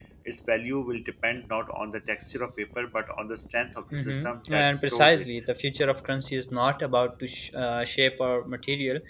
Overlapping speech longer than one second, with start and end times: 3.9-5.5

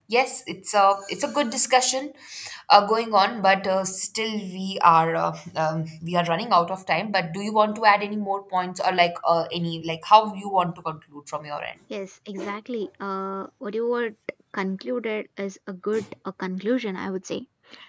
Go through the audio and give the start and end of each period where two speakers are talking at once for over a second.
none

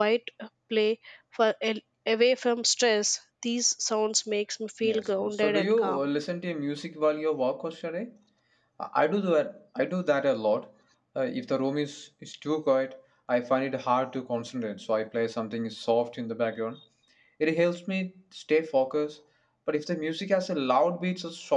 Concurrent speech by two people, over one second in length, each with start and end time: 4.8-6.0

